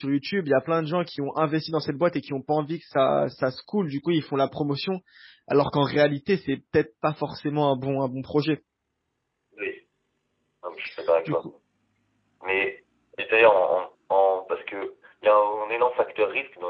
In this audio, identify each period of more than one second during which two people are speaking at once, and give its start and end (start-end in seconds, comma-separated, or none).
none